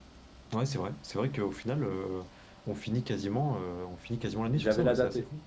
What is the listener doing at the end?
taking over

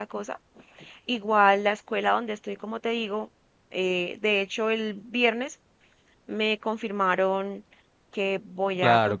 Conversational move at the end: taking over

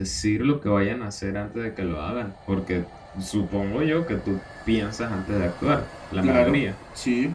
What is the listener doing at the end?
taking over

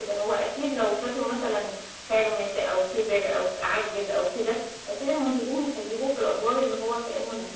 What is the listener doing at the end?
taking over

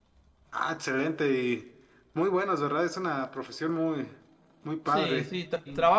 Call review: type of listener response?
taking over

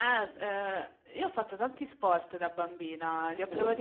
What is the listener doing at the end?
listening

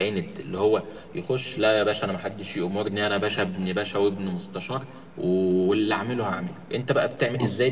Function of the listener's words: taking over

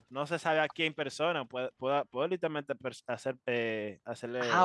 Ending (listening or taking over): taking over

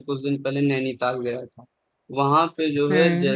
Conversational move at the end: listening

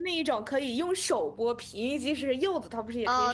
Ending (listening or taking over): taking over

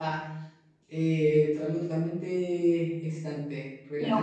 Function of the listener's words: listening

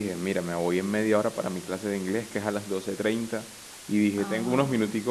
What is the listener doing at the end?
listening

